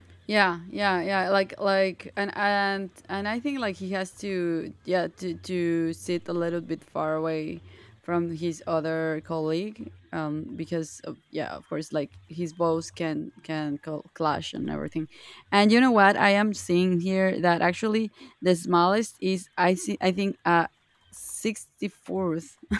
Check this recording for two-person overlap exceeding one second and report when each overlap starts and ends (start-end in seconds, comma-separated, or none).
none